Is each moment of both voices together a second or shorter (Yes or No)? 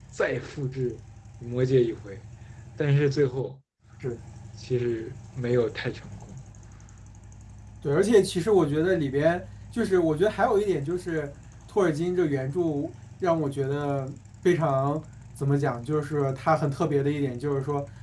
Yes